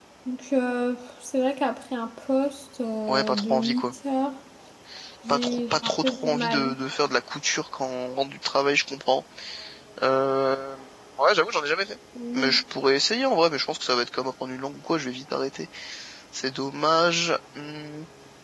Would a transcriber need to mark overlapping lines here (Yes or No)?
Yes